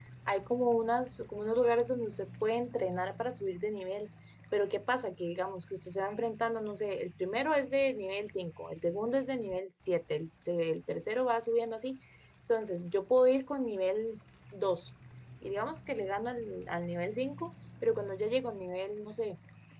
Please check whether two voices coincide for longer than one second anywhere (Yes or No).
No